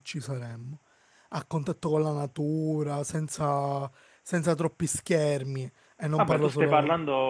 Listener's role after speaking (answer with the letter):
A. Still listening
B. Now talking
B